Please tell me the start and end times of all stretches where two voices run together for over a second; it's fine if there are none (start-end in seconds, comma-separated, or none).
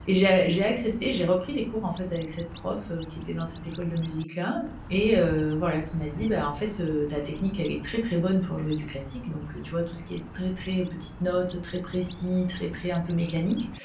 none